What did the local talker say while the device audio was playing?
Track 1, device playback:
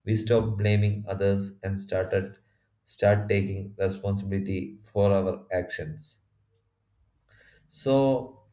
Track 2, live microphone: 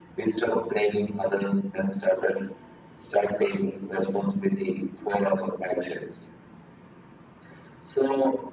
none

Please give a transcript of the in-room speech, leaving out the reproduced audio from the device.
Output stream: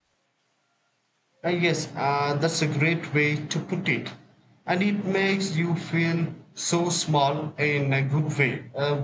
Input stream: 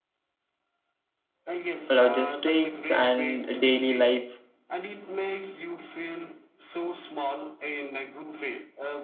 logistics and daily life.

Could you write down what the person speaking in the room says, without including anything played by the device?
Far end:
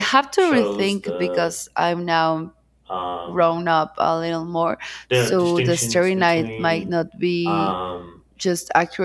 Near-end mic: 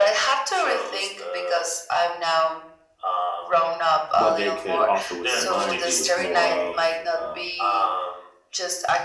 what they could offer with their minds it was more of uh,

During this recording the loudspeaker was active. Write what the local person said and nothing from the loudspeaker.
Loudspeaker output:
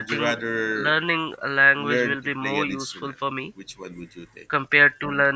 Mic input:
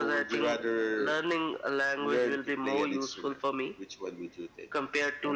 none

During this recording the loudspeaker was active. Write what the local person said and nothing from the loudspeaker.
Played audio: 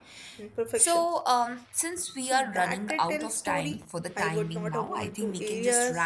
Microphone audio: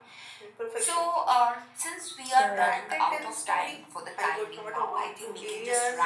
So,

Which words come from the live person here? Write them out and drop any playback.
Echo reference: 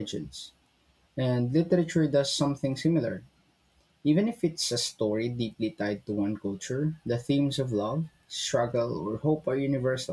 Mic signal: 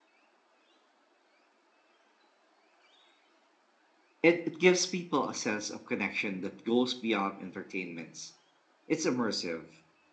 It, it gives people a sense of connection that goes beyond entertainments. It's immersive.

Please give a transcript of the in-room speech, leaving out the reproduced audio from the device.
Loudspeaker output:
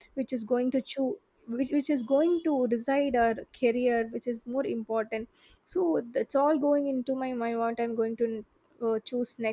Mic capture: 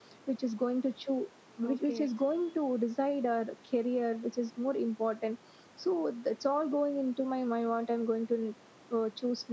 Okay.

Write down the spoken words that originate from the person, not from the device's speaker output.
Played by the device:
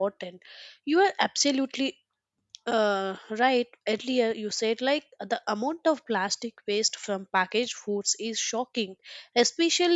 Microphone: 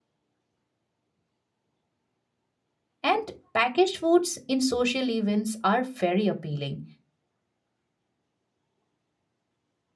And packaged foods in social events are very appealing

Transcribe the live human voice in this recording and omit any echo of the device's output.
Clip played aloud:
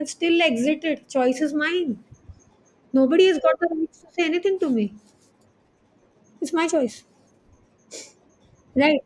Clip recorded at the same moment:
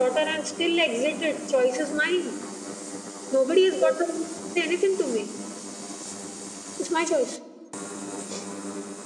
none

